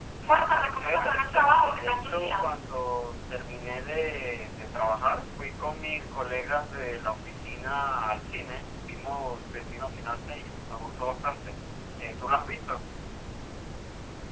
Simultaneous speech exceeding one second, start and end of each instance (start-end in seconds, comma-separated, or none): 0.8-2.6